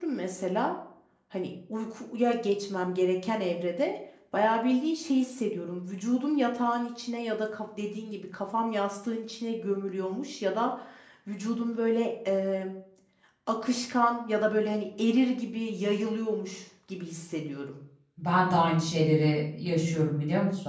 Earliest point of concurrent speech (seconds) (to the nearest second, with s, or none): none